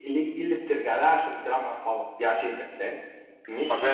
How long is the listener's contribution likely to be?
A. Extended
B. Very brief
A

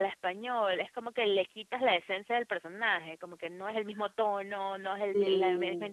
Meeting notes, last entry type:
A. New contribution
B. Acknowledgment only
B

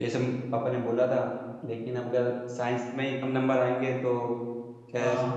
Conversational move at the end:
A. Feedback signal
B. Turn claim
A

